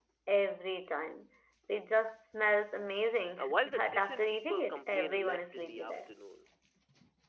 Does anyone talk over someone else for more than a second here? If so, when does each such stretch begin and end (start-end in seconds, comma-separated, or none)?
3.4-6.0